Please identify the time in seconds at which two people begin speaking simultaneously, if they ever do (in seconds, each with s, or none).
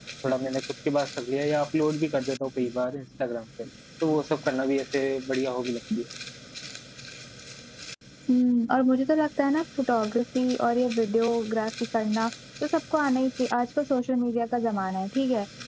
none